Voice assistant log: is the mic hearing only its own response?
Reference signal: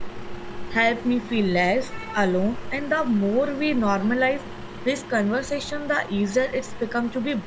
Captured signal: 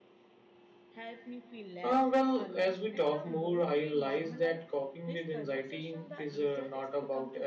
No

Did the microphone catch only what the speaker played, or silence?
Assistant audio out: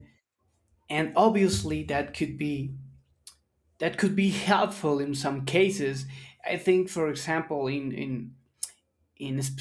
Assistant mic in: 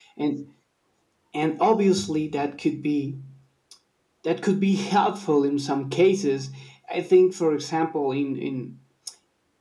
Yes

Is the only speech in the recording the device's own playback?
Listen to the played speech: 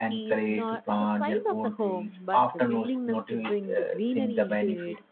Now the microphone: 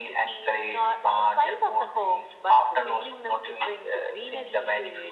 Yes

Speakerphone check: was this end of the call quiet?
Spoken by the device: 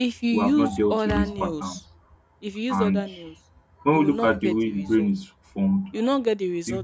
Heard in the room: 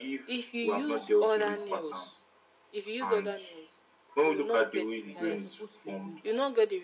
No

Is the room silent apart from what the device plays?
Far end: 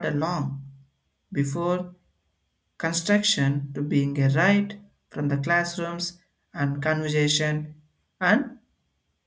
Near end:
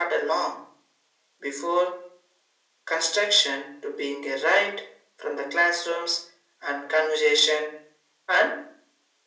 Yes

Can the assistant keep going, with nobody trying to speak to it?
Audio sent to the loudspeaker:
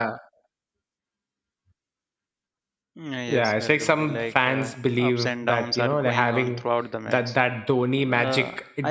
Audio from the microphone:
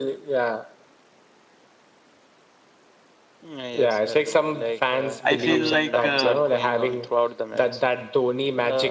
No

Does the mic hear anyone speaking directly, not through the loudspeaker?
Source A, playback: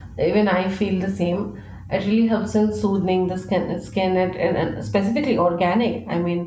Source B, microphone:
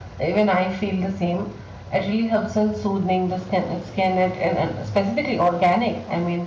No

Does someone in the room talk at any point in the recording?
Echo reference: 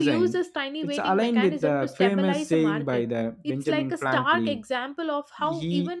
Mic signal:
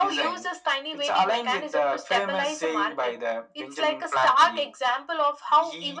No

